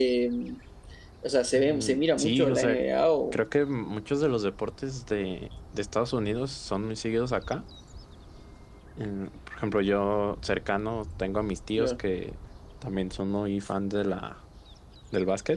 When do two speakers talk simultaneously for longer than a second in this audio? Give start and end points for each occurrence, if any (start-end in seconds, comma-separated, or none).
1.5-2.8